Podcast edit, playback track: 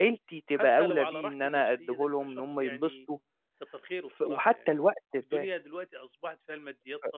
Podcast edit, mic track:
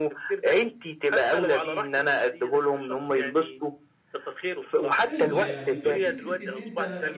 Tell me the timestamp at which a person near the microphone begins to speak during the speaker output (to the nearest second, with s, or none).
5 s